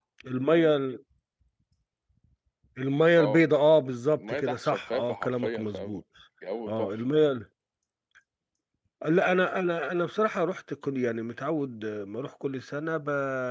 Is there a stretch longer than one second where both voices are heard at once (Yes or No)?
Yes